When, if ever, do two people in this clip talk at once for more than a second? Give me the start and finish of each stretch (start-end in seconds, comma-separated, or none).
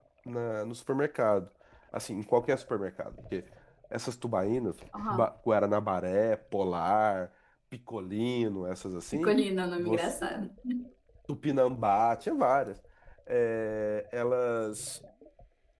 none